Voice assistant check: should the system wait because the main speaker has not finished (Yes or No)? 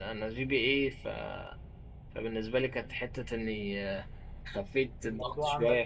Yes